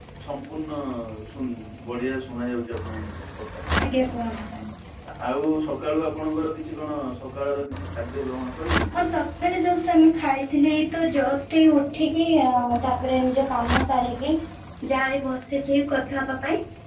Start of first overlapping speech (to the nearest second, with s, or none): none